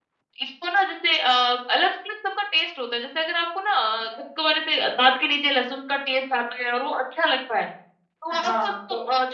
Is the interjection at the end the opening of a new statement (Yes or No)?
No